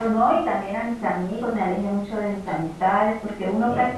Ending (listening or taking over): listening